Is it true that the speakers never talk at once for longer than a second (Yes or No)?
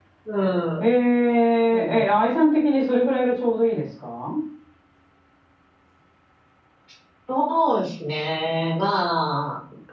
Yes